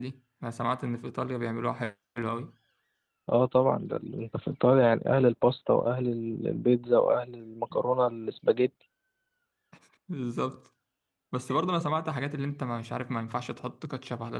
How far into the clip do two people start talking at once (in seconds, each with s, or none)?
none